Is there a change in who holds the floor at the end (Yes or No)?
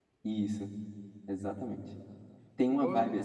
No